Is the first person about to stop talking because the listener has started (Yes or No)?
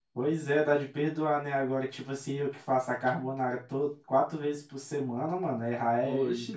Yes